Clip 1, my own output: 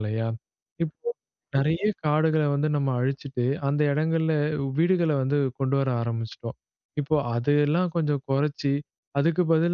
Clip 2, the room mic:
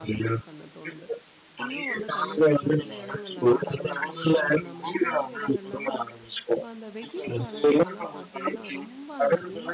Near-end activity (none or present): present